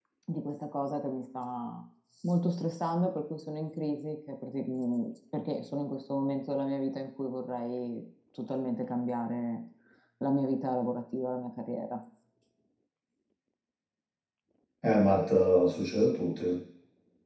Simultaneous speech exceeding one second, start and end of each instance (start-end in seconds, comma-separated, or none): none